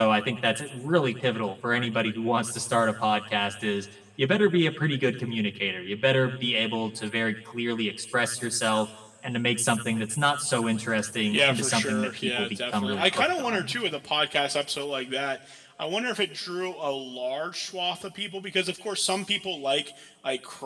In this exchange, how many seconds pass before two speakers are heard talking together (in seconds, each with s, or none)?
11.3 s